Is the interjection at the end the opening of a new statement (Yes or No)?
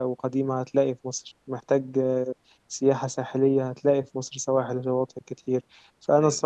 No